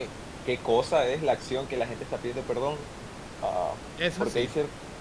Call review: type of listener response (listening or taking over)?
listening